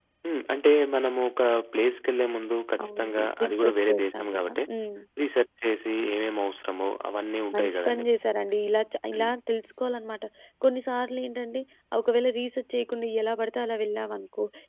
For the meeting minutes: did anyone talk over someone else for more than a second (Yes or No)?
Yes